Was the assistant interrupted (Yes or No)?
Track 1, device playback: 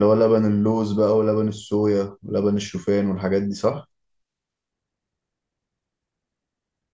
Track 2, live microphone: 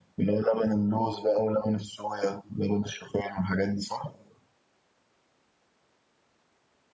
No